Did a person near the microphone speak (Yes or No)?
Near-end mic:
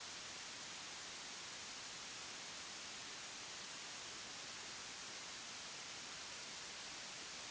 No